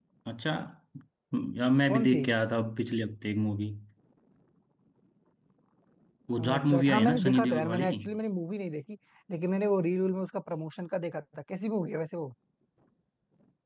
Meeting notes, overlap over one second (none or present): present